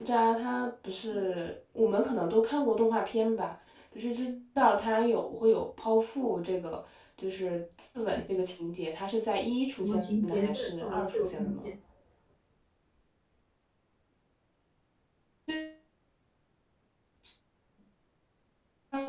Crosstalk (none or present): present